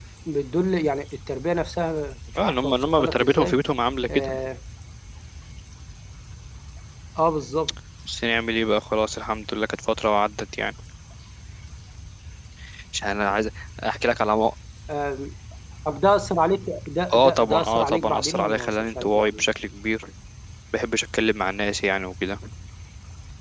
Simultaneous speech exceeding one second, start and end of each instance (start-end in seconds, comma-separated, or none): 2.4-3.6, 17.1-19.5